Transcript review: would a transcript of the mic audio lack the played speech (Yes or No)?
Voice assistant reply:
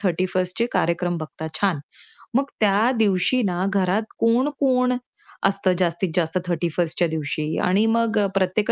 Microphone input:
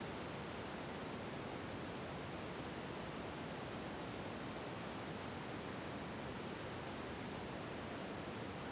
Yes